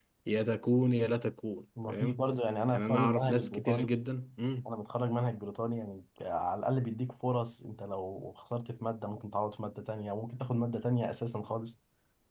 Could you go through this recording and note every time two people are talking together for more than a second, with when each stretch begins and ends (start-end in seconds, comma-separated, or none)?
2.7-4.0